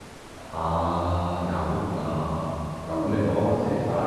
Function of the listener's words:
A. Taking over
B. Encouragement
B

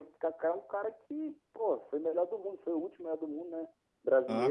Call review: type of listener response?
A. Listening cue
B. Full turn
B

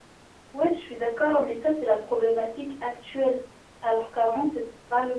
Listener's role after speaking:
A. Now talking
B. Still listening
B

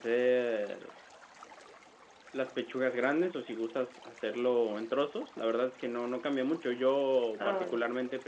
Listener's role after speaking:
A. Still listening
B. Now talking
A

